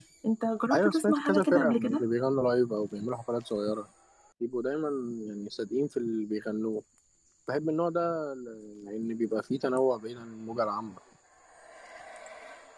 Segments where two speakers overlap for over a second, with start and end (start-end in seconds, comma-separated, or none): 0.7-2.0